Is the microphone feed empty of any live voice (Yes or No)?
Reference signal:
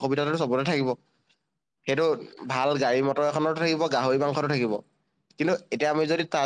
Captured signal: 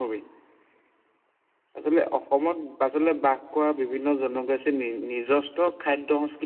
No